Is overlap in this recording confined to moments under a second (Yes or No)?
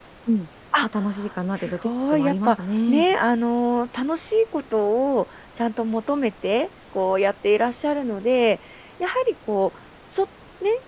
No